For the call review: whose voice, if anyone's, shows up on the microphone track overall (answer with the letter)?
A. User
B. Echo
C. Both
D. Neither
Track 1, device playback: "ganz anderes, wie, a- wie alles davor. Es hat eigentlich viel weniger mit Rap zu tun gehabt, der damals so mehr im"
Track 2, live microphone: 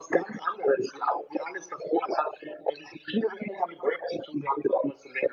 B